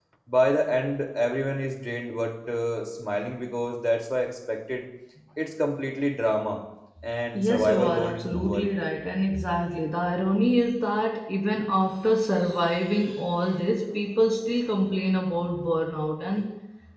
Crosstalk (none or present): present